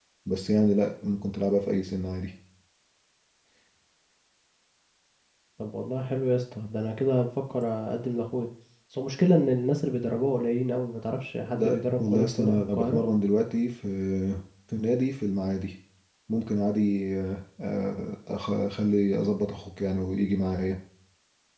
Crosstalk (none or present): present